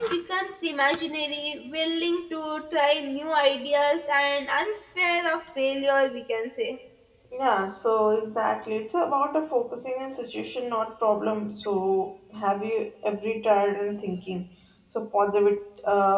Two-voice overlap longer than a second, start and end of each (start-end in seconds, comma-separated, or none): none